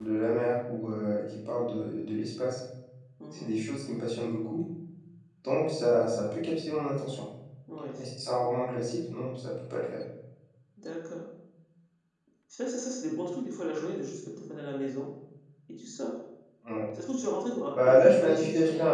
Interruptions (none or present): present